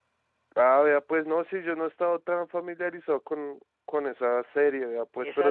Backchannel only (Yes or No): No